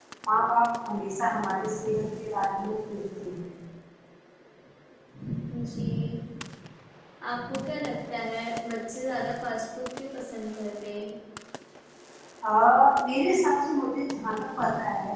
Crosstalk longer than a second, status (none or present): none